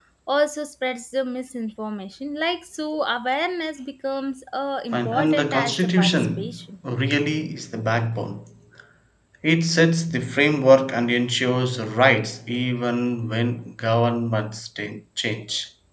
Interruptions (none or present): present